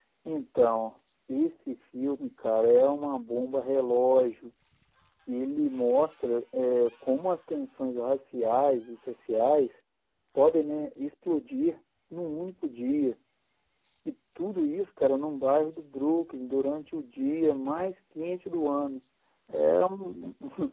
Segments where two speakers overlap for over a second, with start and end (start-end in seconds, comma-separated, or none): none